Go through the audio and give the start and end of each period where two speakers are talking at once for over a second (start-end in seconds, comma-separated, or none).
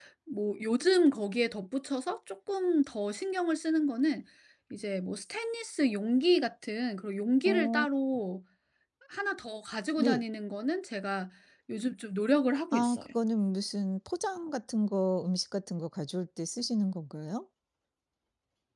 none